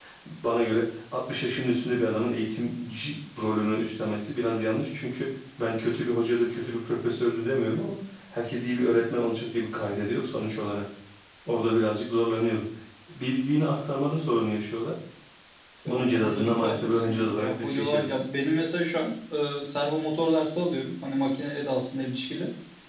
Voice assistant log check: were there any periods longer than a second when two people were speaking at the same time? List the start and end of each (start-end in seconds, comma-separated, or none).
15.9-18.2